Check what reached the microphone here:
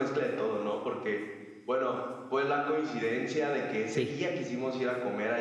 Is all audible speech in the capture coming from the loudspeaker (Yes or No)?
No